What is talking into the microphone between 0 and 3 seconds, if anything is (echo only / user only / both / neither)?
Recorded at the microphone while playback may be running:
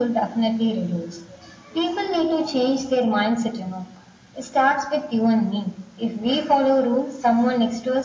echo only